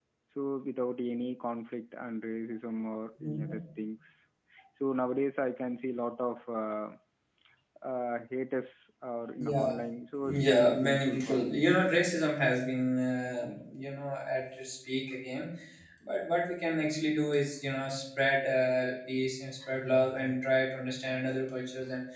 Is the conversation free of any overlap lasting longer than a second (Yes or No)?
No